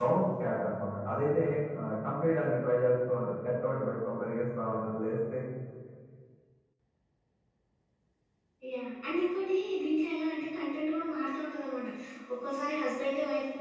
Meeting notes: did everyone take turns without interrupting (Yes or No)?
Yes